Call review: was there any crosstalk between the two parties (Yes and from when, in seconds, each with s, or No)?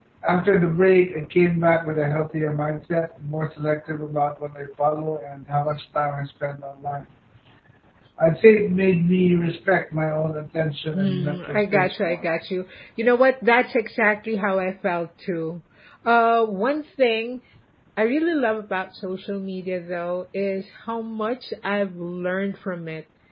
Yes, from 10.9 s